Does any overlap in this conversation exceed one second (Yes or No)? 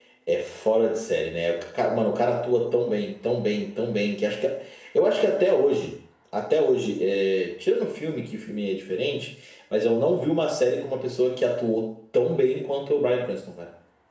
No